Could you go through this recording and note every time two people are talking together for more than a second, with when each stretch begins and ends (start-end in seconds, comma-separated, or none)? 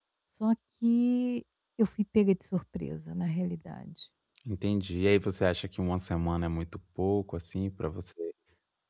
none